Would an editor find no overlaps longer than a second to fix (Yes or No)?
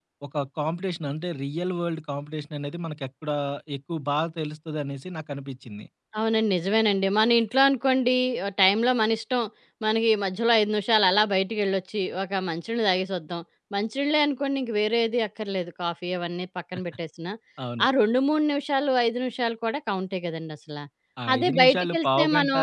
No